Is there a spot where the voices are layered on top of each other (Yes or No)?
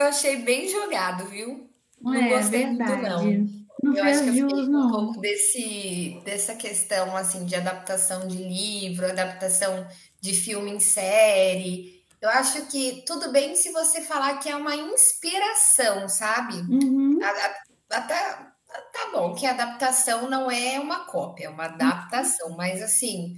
Yes